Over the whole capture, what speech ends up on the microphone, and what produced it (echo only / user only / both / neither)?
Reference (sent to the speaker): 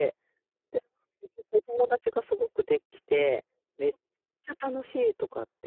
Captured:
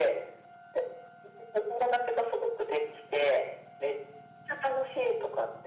echo only